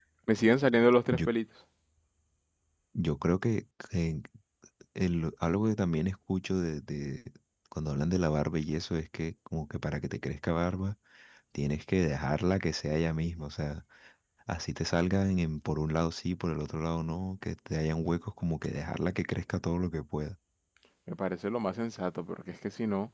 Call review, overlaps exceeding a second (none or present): none